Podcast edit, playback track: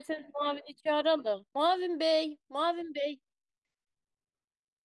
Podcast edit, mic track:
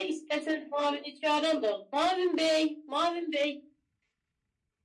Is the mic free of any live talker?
Yes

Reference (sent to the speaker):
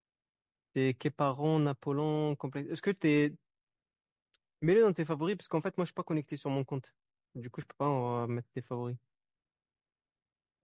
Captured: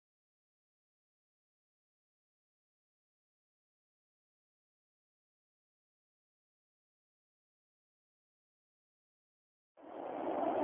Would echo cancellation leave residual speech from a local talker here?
No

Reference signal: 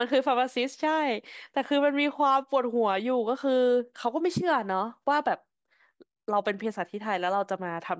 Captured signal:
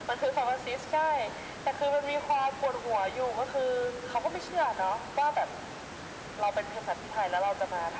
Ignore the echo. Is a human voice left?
No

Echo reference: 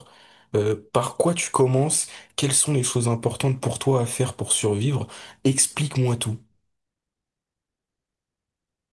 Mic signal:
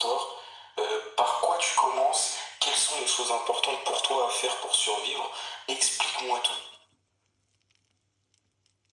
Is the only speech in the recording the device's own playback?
Yes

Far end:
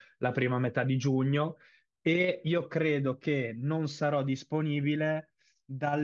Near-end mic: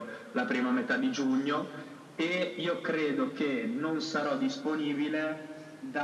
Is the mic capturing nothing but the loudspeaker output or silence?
Yes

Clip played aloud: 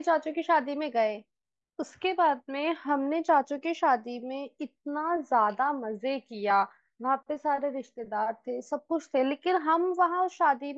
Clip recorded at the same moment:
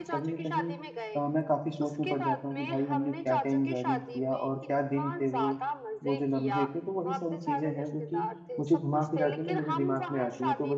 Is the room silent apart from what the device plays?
No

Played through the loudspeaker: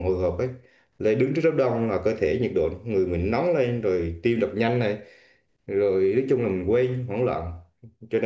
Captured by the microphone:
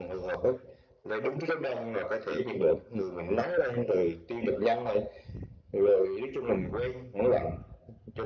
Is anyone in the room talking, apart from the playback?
No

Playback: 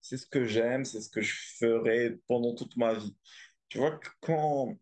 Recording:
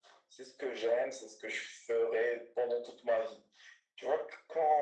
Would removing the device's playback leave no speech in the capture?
Yes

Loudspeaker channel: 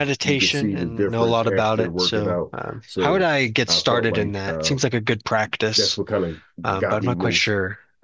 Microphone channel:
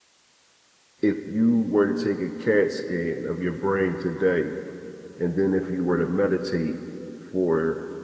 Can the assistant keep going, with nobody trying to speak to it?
No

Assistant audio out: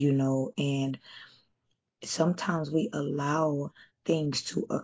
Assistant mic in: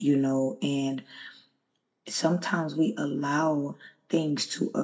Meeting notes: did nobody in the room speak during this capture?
Yes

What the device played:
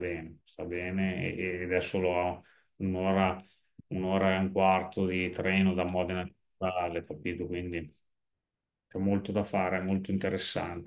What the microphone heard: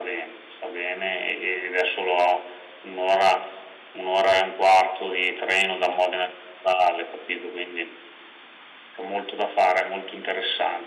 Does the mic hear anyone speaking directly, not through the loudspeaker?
No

